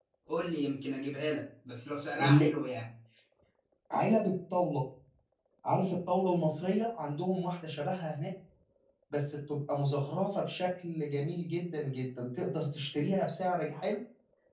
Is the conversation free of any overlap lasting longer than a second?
Yes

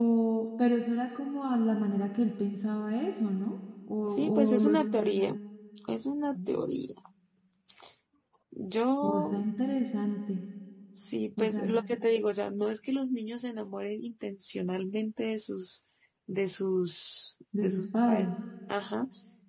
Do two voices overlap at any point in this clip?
Yes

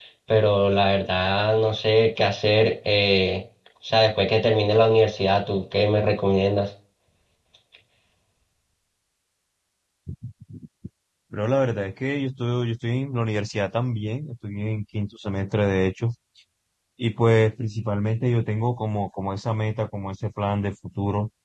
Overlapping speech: No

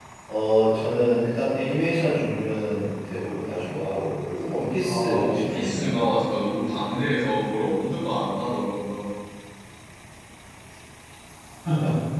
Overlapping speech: Yes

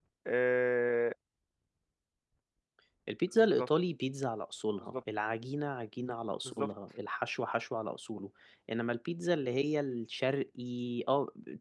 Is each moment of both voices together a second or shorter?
Yes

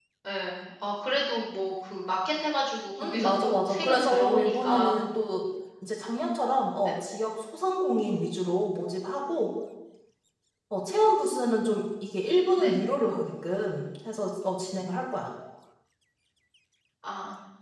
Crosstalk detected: Yes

